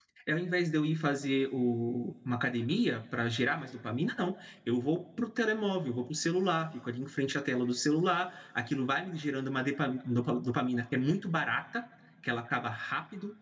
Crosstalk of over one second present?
No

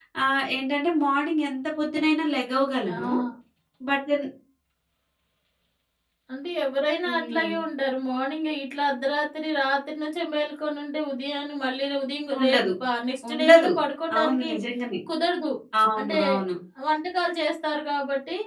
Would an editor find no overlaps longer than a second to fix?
Yes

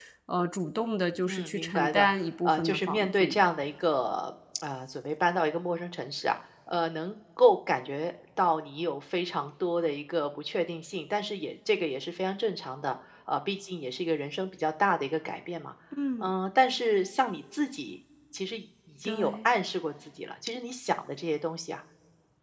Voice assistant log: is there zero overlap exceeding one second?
No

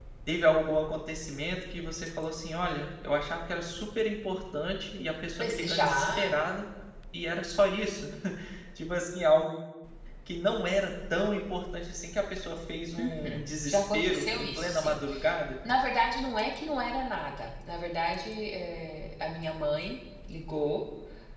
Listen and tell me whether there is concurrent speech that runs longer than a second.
Yes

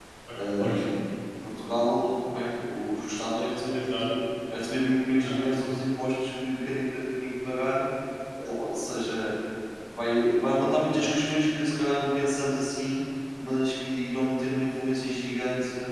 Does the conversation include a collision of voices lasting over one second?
No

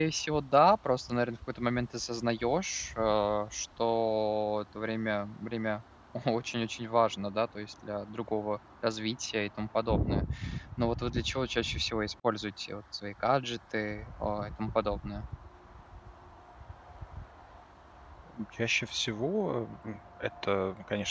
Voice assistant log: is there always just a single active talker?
Yes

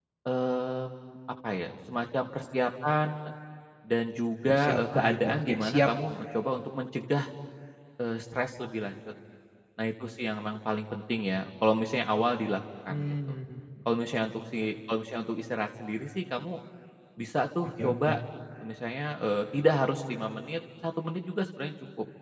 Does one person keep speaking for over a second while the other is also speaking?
Yes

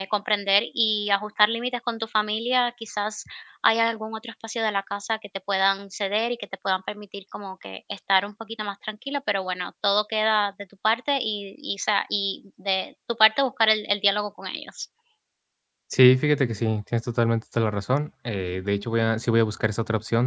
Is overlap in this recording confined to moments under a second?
Yes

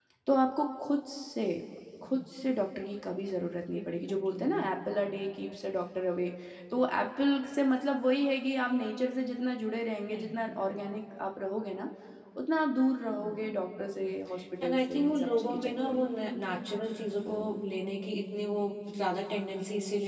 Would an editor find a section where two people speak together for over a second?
Yes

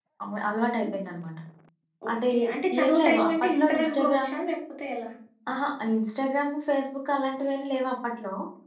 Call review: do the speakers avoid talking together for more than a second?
No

